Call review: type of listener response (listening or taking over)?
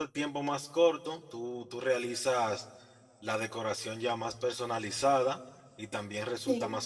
listening